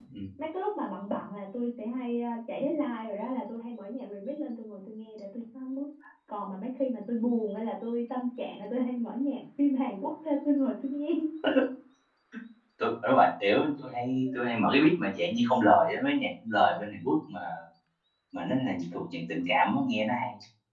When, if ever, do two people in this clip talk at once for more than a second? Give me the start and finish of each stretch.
none

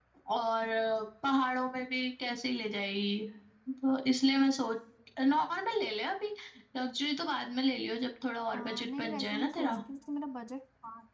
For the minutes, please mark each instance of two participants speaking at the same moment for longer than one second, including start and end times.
8.5-9.8

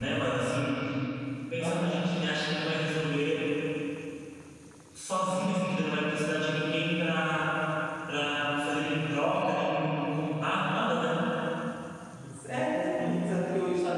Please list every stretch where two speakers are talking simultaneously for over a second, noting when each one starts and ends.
none

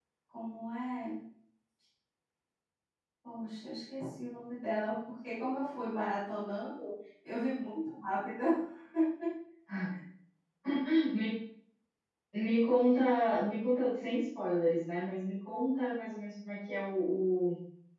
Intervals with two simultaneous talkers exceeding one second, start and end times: none

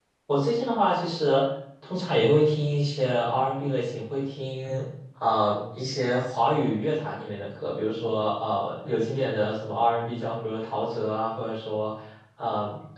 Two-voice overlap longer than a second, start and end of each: none

